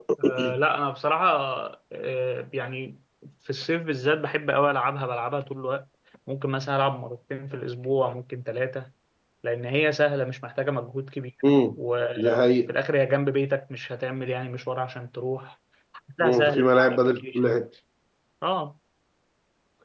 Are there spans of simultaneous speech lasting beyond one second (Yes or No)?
Yes